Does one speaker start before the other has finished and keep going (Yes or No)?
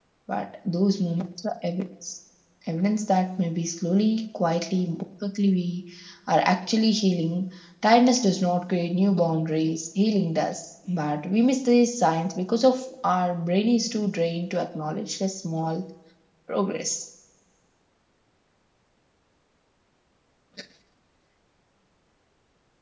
No